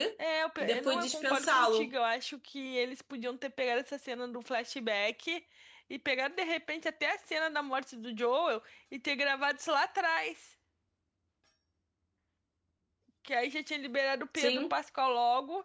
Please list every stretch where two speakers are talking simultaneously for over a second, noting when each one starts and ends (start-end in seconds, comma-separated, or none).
0.6-1.9